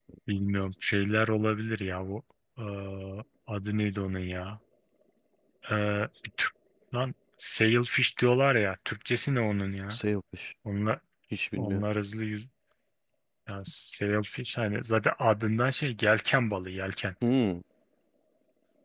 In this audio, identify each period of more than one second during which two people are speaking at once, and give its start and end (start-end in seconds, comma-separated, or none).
none